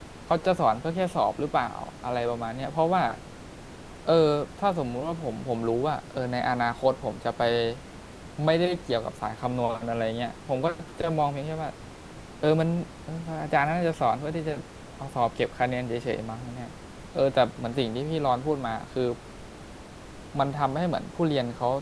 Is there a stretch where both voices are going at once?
No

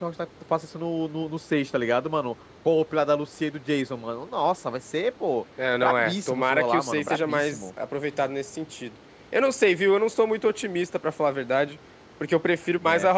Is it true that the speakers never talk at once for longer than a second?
No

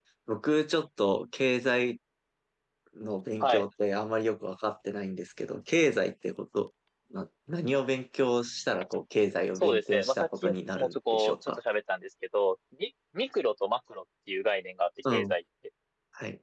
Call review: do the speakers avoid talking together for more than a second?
No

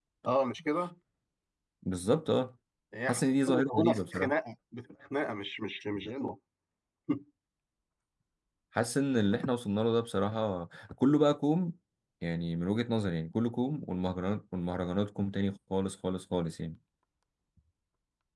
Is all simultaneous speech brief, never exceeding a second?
No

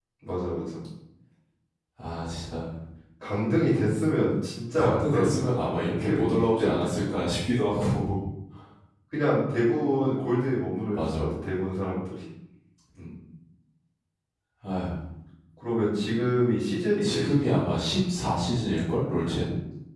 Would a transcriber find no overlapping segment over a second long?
No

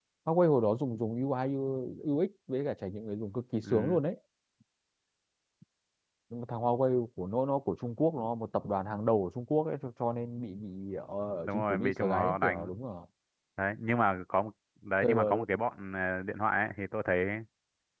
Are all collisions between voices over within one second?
No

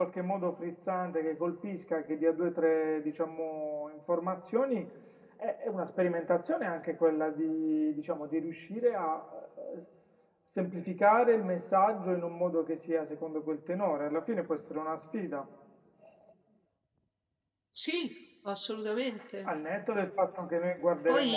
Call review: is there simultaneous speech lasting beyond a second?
No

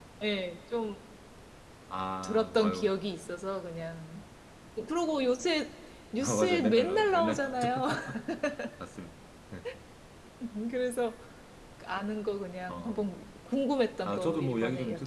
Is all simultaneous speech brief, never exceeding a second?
No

